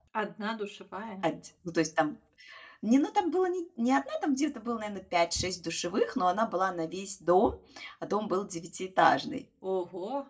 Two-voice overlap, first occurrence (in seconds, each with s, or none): none